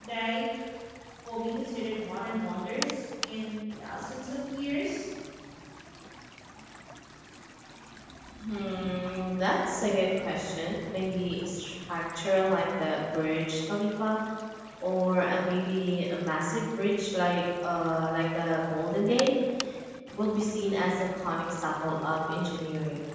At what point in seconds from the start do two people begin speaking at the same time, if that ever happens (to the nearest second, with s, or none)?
none